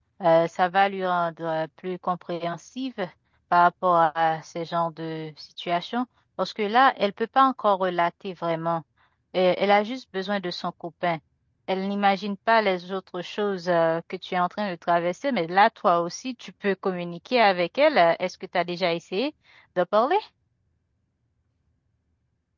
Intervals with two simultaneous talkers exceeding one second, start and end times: none

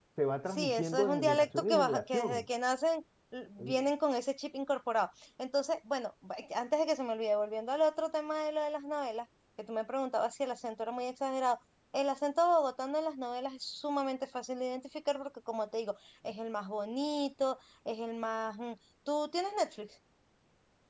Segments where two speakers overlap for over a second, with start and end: 0.5-2.4

